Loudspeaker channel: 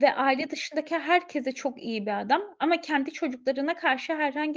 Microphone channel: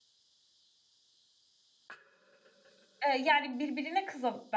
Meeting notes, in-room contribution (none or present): present